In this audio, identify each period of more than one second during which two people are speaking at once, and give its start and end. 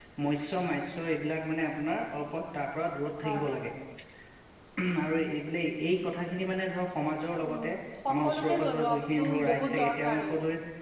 8.2-10.3

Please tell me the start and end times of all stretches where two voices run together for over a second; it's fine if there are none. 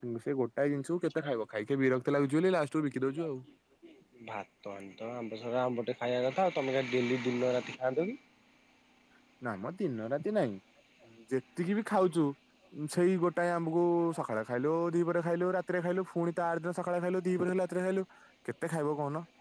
none

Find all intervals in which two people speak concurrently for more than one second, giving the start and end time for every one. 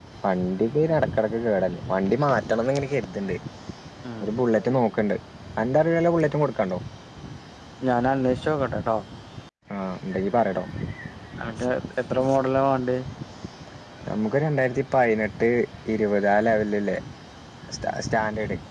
none

